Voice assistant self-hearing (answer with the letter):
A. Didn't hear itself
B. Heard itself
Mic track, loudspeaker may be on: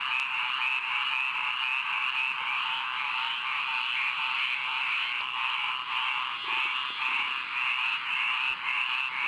A